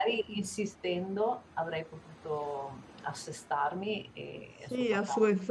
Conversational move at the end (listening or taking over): taking over